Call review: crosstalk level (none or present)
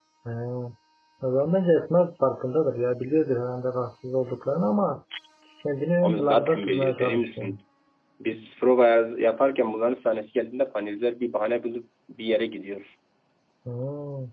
present